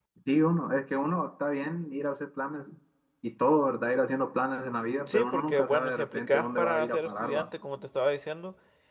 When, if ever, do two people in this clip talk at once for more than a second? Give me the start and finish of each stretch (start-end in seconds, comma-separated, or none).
5.1-7.5